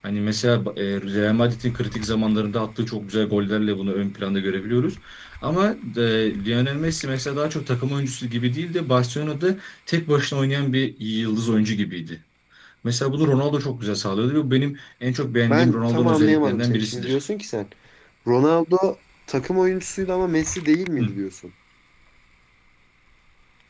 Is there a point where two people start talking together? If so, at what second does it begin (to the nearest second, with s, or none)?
15 s